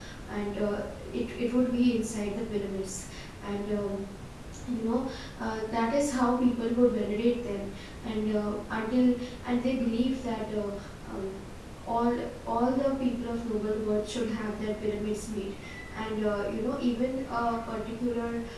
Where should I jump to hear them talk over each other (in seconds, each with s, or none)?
none